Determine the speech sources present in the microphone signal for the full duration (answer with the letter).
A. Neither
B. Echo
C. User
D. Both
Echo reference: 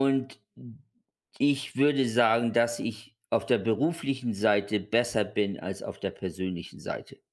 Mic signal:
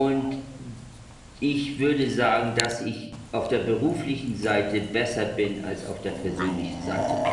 B